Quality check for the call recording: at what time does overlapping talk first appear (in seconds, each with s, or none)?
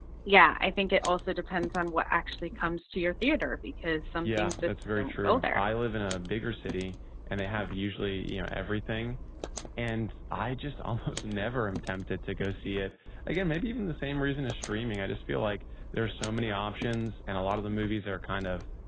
4.2 s